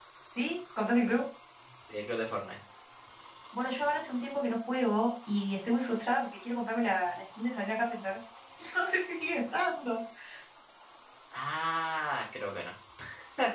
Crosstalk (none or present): none